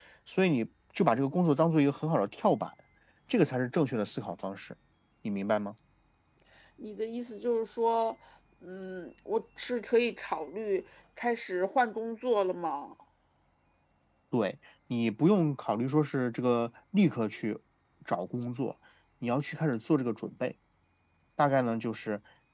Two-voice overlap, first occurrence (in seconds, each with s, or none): none